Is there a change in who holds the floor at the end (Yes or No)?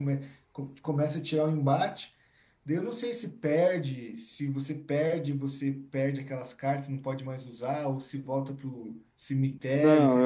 Yes